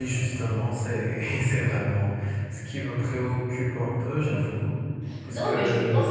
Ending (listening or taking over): taking over